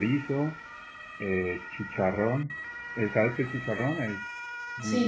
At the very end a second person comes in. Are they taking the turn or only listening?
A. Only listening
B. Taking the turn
B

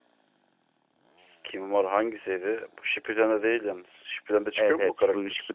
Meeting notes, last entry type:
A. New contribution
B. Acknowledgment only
A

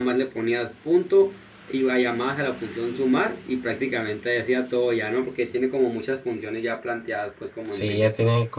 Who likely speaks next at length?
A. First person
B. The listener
B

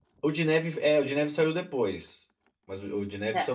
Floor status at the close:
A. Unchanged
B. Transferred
A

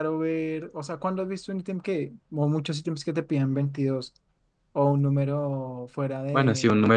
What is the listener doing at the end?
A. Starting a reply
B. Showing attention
A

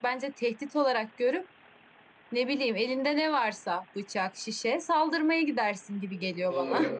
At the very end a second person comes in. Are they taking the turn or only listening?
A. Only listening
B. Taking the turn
B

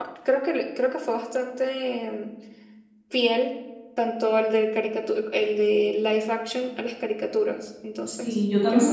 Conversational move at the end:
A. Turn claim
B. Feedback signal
A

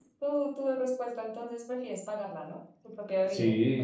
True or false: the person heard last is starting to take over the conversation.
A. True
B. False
A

